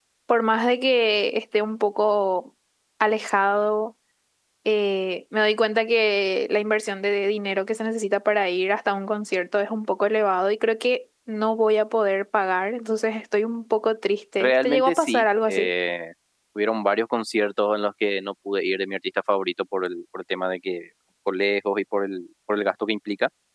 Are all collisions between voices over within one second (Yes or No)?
No